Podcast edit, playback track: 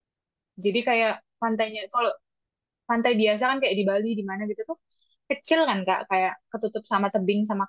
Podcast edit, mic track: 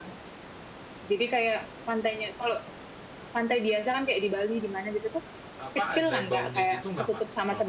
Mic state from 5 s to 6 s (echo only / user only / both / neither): both